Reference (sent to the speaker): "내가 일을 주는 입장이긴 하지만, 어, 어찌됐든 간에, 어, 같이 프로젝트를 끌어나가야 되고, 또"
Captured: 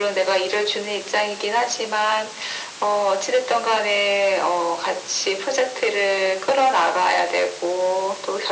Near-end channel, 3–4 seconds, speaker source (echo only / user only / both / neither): echo only